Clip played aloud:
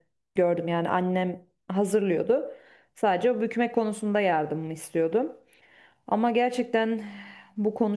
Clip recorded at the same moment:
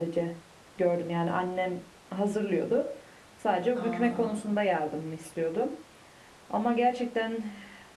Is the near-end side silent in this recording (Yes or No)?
No